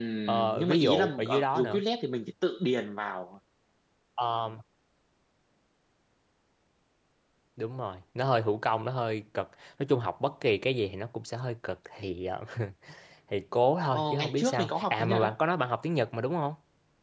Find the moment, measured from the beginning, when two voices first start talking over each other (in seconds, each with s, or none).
0.5 s